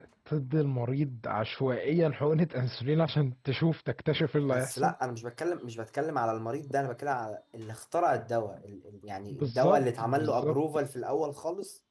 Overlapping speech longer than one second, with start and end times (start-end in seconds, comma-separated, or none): 9.3-10.6